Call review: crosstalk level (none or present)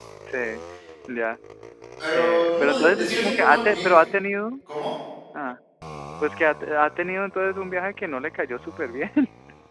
present